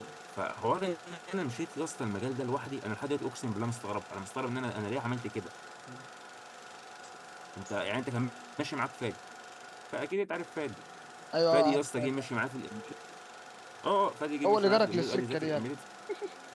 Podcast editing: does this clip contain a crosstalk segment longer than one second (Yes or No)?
Yes